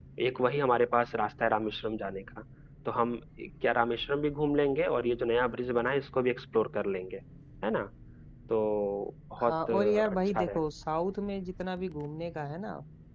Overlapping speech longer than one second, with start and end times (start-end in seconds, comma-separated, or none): 9.4-10.6